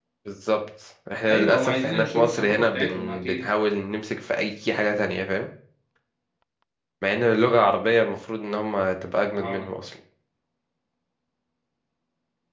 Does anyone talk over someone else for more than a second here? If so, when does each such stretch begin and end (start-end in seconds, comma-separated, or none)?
1.3-3.4